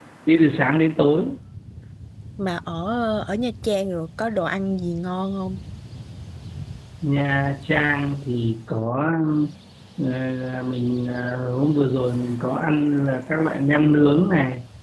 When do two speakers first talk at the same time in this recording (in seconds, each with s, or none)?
none